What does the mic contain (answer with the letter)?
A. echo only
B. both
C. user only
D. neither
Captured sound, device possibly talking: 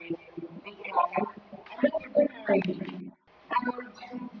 A